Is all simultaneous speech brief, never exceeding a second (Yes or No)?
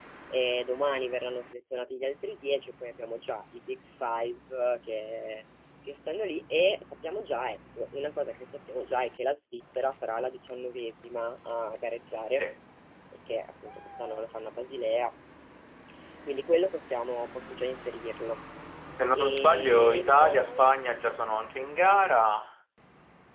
No